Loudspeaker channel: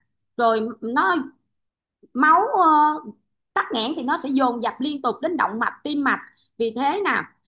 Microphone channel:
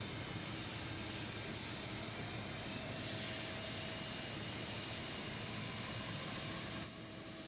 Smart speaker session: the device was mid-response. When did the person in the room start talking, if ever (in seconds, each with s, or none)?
none